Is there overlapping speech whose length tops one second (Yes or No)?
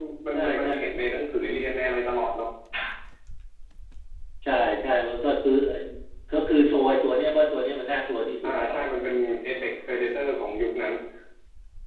No